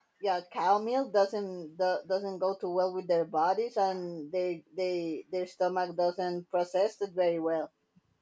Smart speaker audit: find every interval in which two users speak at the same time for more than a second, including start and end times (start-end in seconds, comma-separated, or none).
none